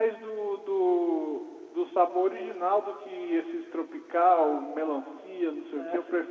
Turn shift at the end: Yes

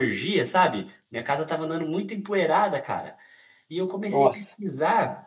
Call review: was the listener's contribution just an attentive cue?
Yes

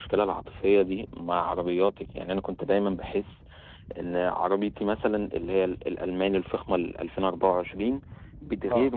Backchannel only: Yes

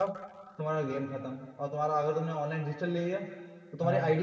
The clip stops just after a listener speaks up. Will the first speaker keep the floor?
Yes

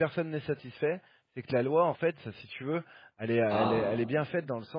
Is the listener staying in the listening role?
Yes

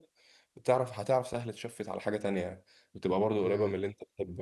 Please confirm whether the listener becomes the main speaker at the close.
Yes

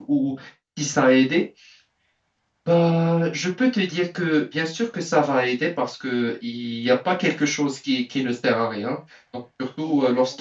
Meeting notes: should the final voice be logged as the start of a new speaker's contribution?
No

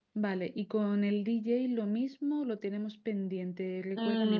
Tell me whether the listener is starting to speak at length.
Yes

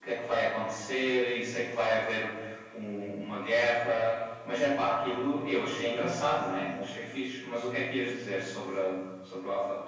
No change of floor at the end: No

